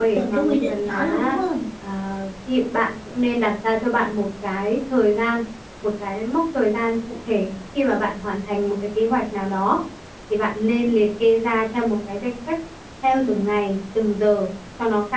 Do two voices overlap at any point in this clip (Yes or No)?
Yes